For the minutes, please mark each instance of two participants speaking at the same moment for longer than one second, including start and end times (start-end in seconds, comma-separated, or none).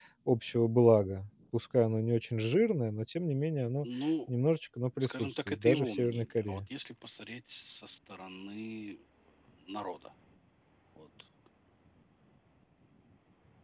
5.0-6.6